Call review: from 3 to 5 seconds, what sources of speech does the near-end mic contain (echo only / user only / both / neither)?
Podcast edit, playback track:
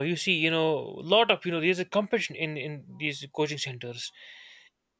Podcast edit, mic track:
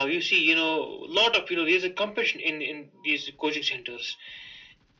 echo only